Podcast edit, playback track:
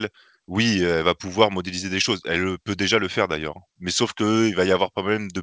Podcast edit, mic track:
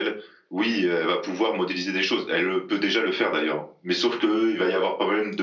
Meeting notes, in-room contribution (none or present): none